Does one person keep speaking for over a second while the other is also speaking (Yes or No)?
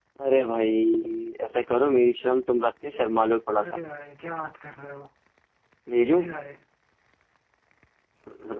No